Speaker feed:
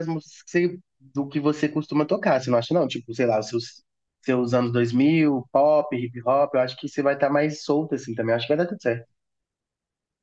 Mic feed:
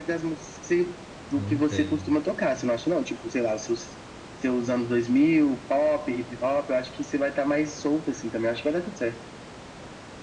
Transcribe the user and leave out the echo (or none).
Não tem.